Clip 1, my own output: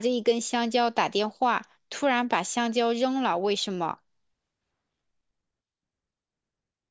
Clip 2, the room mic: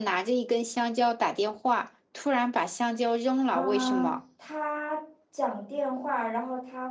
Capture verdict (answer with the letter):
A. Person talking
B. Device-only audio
A